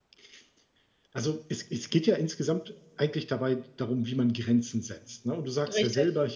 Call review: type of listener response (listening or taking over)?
listening